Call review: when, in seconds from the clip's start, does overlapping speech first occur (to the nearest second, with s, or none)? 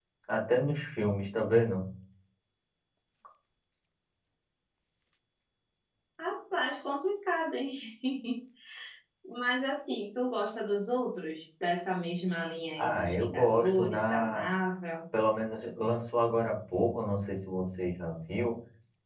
13 s